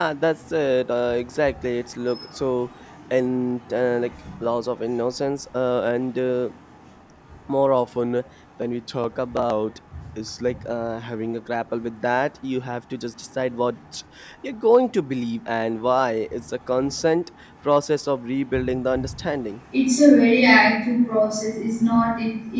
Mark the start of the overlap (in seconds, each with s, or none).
none